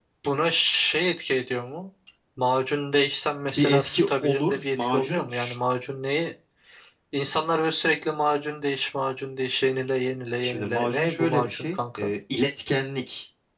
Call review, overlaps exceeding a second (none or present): present